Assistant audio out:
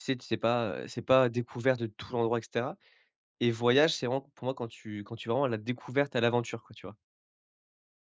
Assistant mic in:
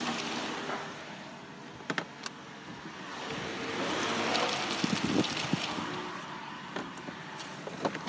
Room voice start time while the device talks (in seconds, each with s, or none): none